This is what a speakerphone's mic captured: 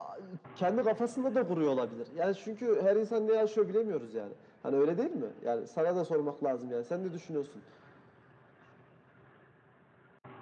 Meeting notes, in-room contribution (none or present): none